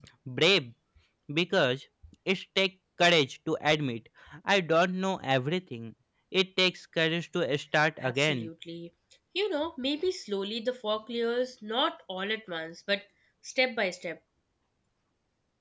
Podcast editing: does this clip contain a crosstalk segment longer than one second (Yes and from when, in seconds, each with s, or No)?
No